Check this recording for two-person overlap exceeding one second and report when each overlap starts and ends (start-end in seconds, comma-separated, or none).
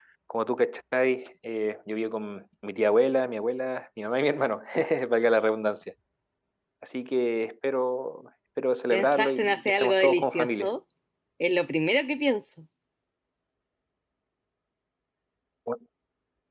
8.9-10.7